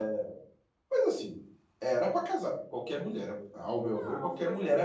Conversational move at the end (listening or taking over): taking over